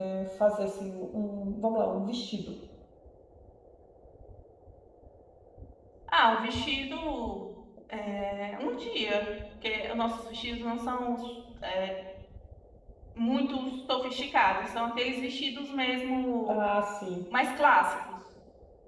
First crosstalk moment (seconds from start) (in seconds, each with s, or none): none